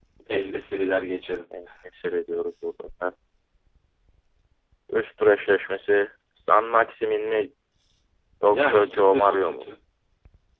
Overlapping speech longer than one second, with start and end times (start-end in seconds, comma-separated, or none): 8.5-9.7